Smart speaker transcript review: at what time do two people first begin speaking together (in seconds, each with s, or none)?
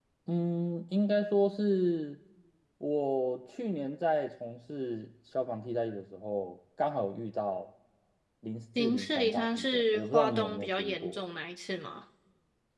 8.8 s